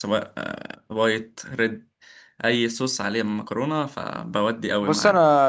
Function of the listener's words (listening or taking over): taking over